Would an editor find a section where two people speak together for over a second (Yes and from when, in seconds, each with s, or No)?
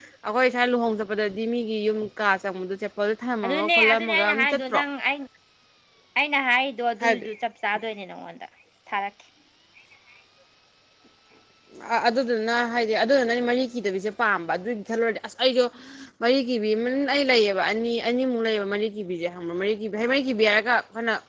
Yes, from 3.4 s